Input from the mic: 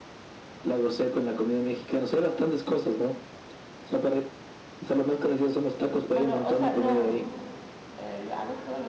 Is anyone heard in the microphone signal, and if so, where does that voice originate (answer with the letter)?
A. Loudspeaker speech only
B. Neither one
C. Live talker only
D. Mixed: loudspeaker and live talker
D